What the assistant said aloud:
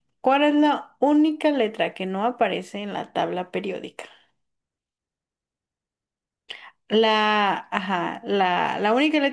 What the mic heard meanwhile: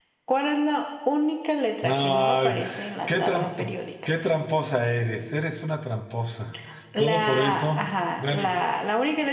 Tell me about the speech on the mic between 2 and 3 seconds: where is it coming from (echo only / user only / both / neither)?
both